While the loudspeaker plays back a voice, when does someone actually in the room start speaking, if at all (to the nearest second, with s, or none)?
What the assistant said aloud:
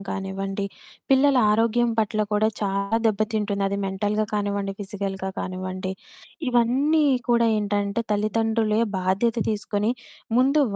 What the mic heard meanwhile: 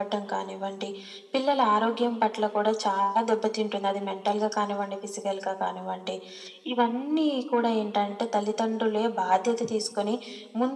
none